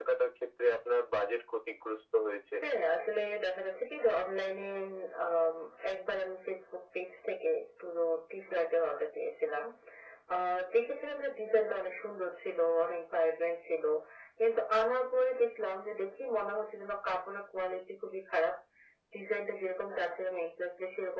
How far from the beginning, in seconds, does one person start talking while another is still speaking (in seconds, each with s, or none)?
none